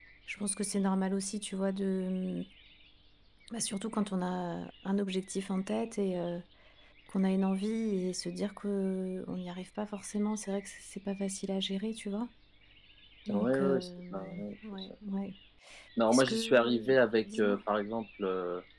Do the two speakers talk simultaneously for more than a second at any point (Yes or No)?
Yes